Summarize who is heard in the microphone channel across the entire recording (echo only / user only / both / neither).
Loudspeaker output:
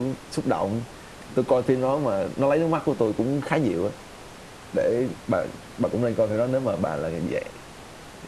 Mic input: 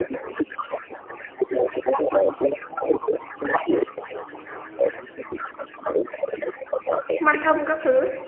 both